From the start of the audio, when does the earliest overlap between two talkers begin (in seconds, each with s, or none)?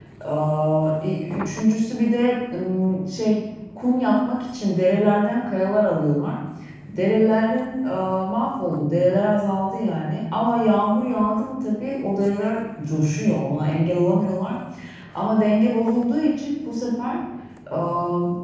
none